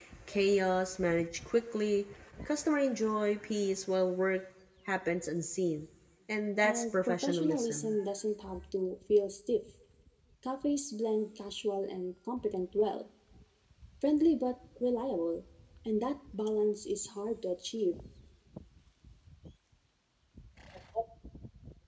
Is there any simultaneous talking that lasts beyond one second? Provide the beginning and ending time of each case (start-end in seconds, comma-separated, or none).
6.6-8.0